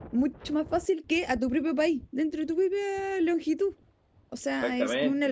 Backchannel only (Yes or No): Yes